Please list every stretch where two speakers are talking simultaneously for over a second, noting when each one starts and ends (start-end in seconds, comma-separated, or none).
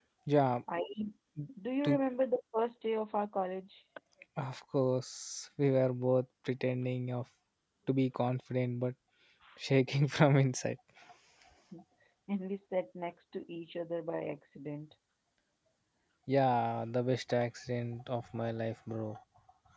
none